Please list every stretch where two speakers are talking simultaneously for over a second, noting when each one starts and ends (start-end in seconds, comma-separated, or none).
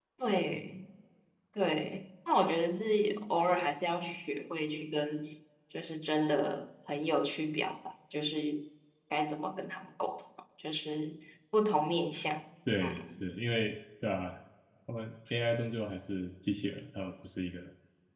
none